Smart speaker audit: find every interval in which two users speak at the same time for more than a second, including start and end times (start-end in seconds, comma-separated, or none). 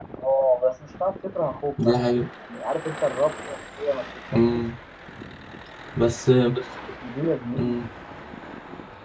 none